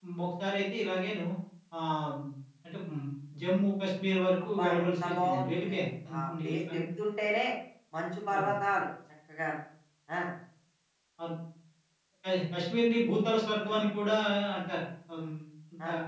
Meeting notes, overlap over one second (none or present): present